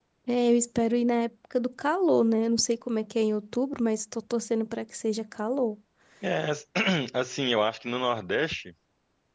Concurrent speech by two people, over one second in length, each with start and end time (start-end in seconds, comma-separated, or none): none